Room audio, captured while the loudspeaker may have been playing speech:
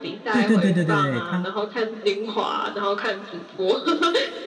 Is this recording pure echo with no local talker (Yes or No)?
No